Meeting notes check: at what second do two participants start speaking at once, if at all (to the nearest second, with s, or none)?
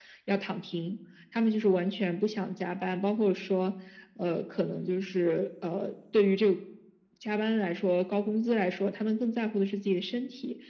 none